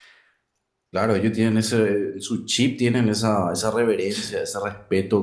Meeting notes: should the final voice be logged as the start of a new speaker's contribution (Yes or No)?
No